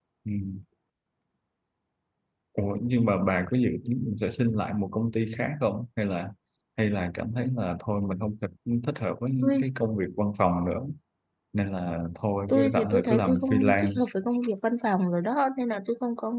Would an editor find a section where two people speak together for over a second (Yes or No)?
Yes